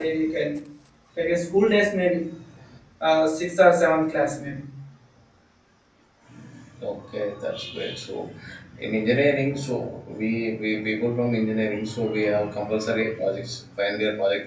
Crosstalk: none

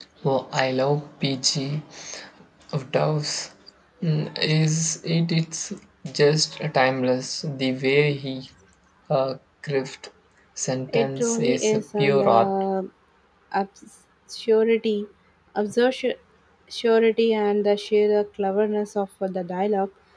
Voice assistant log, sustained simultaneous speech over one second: present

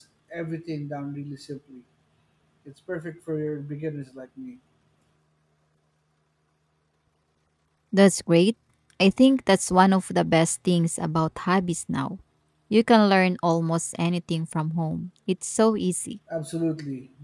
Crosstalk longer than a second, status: none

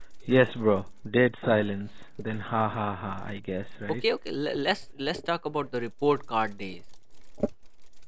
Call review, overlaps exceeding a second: none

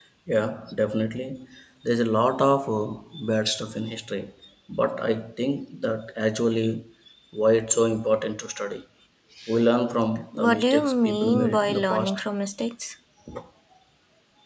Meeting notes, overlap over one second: present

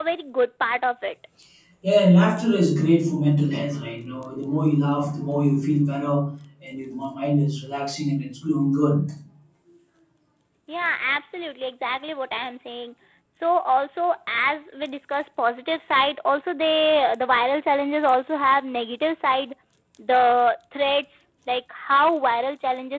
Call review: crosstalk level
none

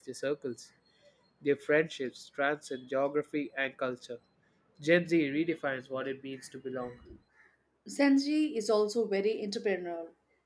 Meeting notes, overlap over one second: none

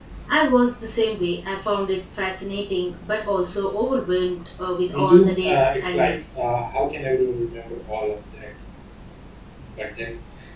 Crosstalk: present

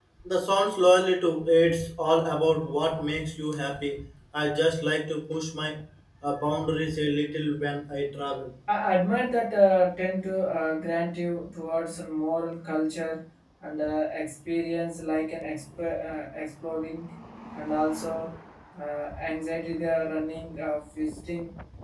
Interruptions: none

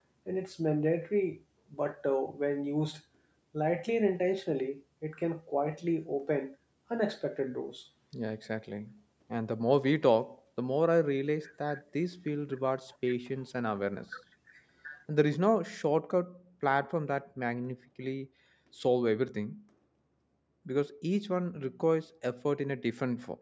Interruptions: none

